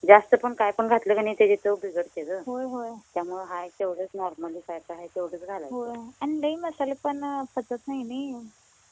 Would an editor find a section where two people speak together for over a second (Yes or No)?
No